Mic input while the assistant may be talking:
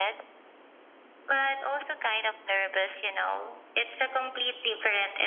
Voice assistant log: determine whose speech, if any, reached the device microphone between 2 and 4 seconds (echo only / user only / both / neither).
echo only